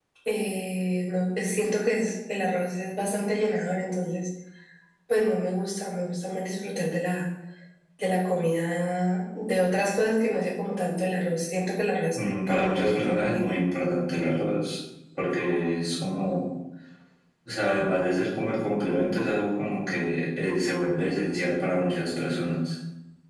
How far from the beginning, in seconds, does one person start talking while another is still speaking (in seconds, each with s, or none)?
12.1 s